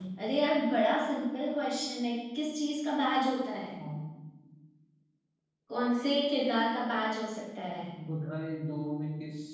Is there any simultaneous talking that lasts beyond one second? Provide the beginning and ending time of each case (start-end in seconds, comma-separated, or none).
none